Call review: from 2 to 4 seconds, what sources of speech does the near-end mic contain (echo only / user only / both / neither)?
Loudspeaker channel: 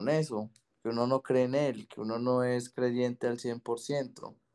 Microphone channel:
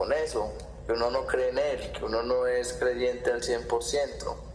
echo only